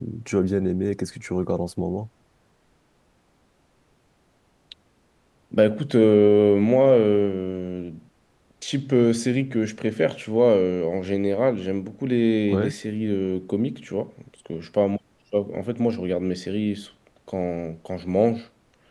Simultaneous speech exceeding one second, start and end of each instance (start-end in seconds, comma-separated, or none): none